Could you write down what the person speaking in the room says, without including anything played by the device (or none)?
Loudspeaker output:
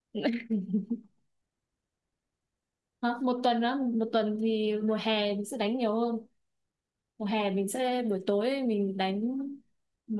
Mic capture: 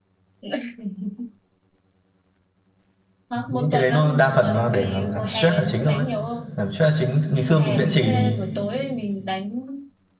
thì những cái đấy nó đa phần nó để làm giảm stress là chính thôi giảm stress là chính ngày xưa mình vẽ chì thì